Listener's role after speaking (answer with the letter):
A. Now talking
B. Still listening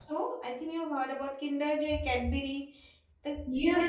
A